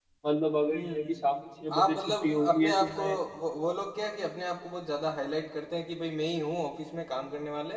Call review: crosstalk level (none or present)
present